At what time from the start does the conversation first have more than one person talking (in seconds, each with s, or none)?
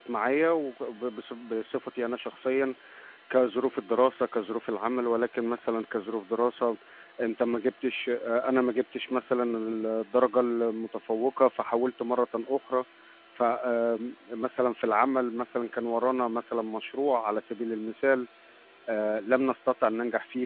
none